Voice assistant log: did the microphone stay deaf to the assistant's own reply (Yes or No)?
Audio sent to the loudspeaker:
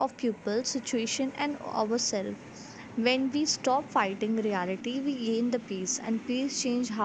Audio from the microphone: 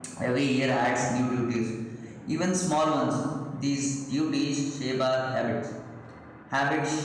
Yes